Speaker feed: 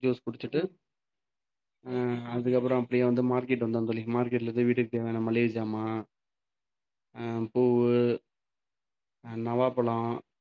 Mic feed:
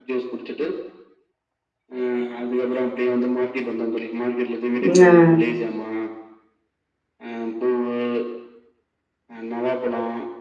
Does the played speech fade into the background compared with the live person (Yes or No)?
Yes